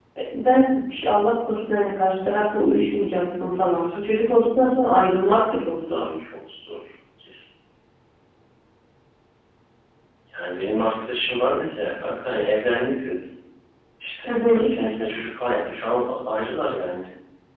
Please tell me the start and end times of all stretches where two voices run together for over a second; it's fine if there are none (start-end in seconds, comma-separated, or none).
none